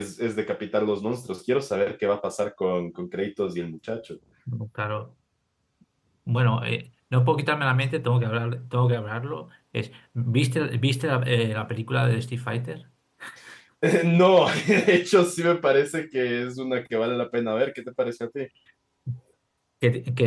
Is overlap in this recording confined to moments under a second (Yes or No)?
Yes